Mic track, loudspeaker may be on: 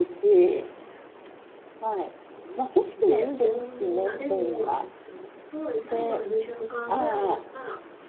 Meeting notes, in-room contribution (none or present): present